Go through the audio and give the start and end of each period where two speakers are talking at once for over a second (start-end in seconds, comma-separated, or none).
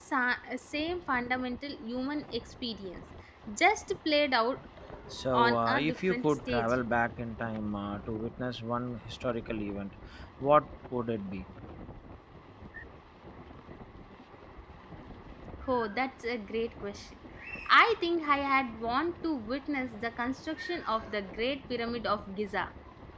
5.3-6.7